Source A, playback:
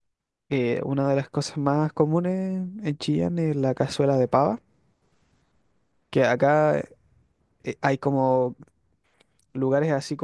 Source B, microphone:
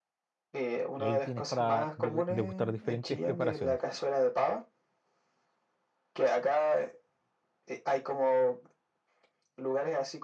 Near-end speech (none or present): present